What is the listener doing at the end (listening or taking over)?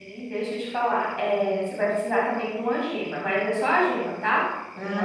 listening